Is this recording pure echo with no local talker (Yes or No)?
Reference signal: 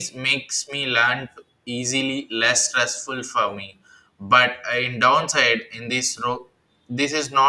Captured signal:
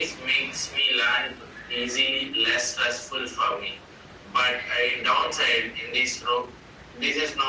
Yes